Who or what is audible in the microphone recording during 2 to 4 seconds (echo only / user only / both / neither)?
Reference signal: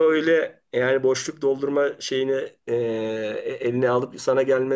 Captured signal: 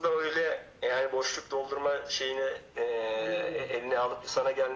both